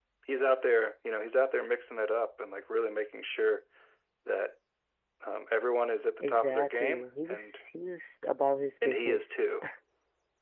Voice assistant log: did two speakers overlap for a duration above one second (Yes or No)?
Yes